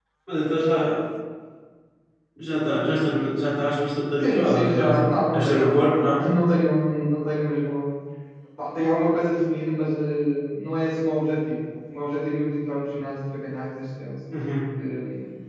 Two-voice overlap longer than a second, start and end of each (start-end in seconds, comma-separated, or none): 4.2-6.2